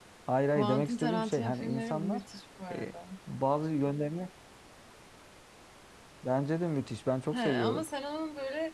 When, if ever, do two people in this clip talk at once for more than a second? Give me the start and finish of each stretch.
0.6-2.2

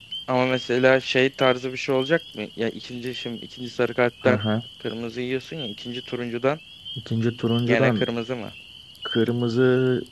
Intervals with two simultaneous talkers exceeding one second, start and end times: none

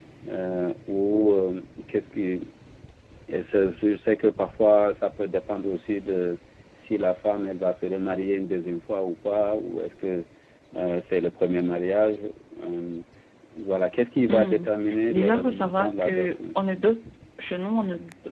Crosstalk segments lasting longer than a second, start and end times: 15.1-16.3

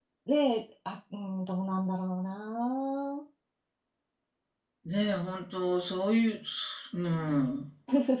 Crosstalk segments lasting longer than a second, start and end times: none

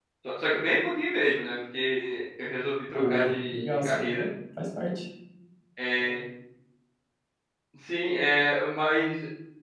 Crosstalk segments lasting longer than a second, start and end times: 2.9-4.2

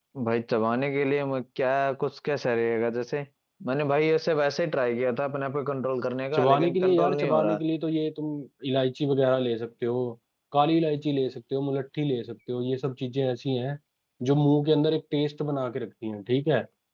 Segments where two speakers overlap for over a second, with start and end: 6.3-7.6

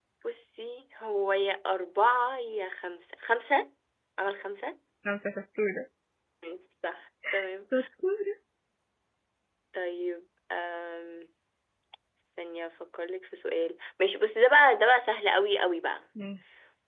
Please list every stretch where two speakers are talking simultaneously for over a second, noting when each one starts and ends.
none

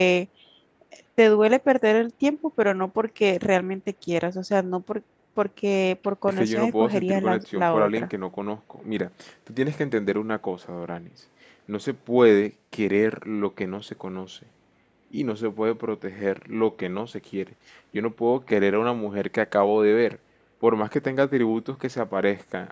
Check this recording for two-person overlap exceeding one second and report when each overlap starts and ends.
6.3-8.1

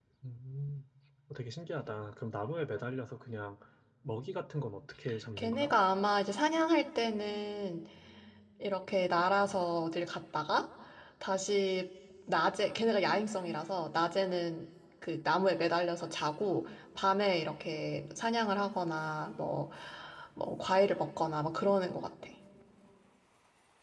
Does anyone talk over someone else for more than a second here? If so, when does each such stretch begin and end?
none

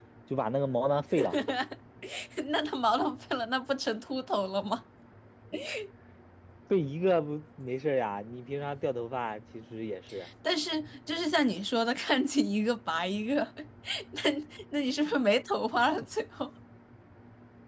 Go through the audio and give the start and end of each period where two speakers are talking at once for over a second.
none

